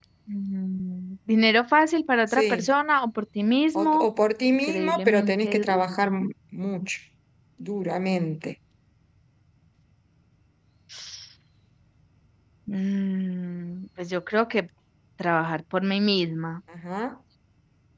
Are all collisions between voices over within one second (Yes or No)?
No